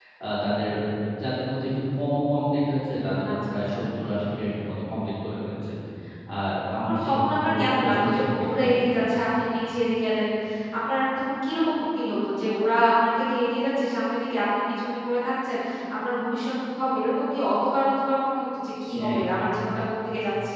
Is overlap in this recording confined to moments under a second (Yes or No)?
No